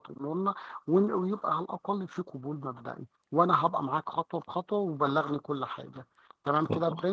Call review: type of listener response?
taking over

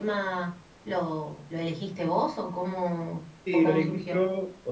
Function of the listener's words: taking over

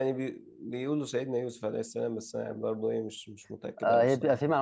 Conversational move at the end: taking over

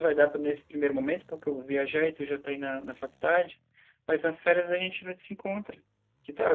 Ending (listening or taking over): taking over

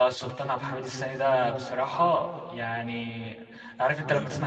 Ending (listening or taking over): listening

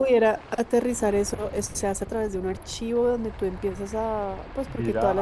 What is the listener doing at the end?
taking over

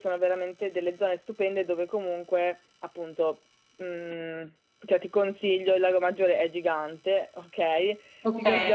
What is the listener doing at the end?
listening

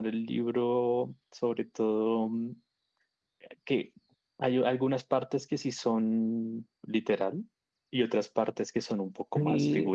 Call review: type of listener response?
taking over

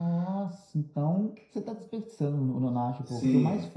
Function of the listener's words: listening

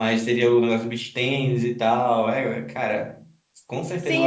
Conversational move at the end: taking over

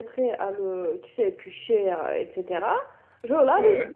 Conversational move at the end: listening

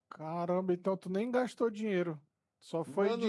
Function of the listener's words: taking over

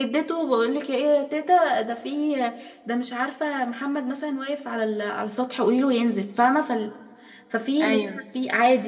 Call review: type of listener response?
listening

